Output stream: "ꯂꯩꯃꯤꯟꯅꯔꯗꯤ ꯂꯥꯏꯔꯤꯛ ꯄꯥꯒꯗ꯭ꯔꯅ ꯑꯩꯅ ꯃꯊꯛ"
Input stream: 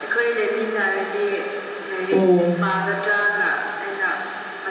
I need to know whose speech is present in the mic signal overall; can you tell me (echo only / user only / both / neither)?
both